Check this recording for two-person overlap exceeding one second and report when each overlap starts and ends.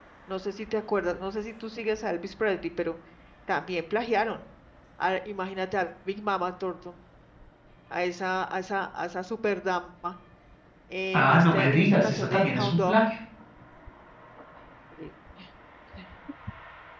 11.1-13.0

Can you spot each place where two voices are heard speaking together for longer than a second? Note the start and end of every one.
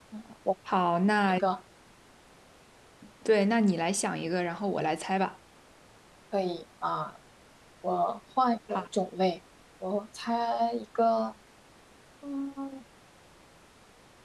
none

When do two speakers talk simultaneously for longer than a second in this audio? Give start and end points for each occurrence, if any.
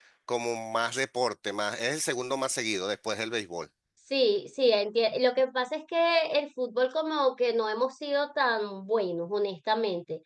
none

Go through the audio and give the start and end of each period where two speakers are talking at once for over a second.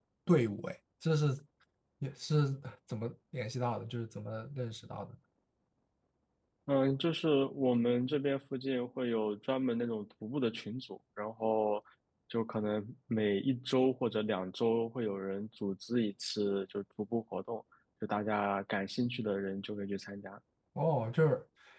none

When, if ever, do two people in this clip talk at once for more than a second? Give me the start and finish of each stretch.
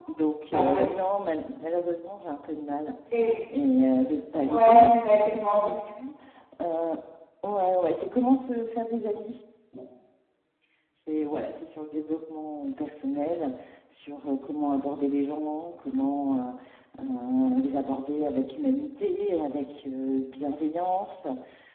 4.5-5.7

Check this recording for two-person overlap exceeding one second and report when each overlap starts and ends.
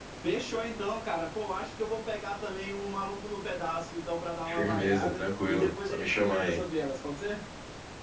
4.5-6.6

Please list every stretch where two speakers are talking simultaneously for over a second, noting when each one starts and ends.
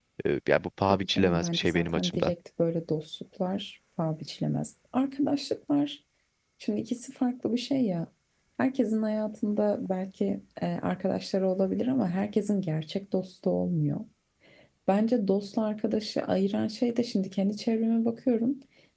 0.9-2.3

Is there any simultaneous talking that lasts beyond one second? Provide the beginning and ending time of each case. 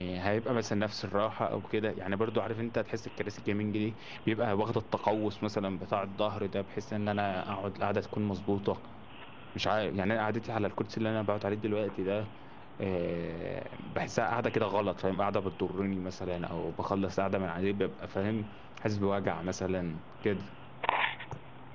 none

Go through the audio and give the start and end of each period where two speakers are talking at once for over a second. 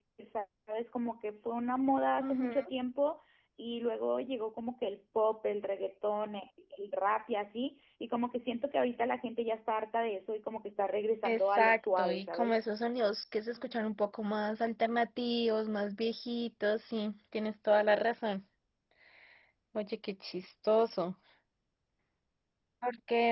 11.2-12.6

